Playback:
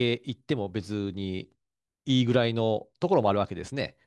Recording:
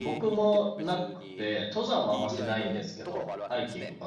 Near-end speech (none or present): present